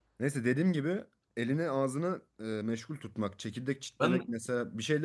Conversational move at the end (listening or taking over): listening